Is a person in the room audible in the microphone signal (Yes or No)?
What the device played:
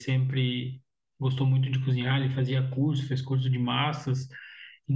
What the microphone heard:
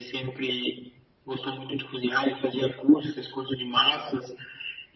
No